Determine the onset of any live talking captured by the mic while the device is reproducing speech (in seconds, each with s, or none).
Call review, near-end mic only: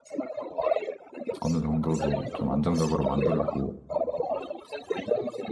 1.4 s